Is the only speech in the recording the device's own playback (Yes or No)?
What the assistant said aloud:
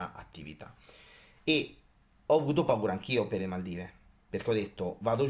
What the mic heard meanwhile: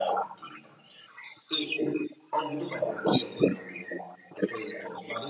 Yes